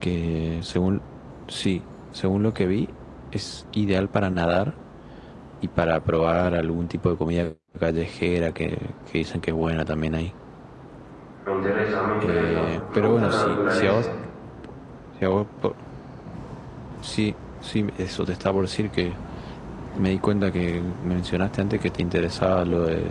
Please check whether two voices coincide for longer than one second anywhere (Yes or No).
Yes